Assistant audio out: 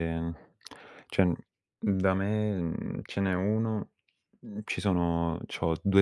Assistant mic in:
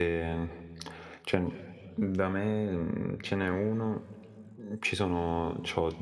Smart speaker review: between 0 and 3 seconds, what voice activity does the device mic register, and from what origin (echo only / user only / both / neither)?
echo only